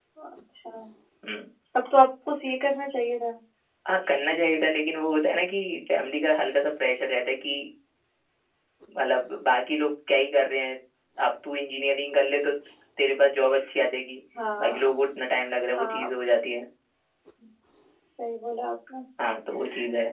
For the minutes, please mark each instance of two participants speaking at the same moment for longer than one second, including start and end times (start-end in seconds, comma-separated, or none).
none